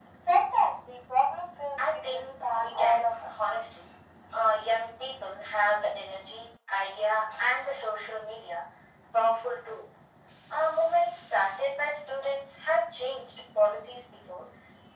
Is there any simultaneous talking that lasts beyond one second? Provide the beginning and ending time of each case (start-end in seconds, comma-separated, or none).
1.8-3.4